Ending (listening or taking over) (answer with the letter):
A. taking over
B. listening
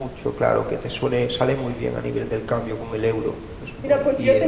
A